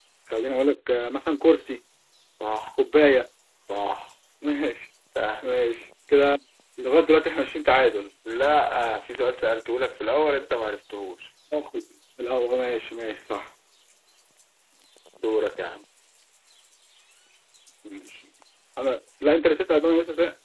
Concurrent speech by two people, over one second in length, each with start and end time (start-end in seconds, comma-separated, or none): none